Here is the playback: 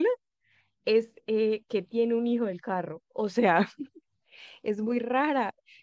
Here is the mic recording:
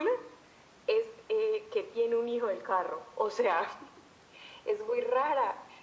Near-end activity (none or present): none